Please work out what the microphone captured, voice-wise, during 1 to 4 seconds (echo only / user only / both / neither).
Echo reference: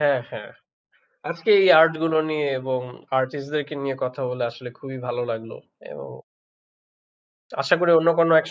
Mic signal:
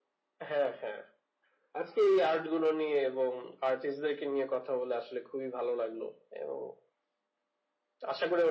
echo only